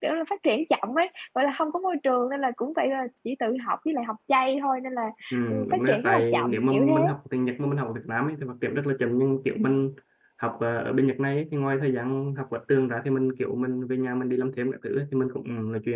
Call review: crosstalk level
present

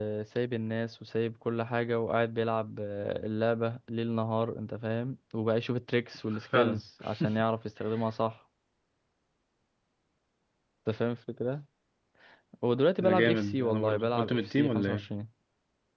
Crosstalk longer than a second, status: present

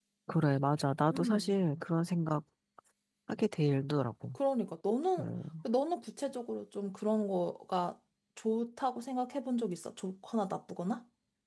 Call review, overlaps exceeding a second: none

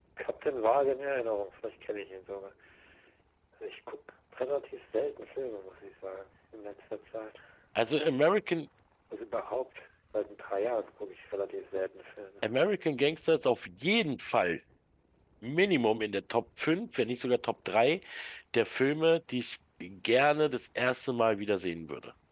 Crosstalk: none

